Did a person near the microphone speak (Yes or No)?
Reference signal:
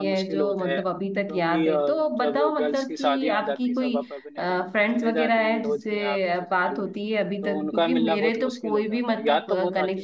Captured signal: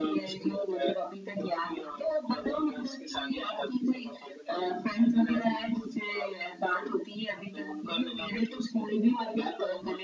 No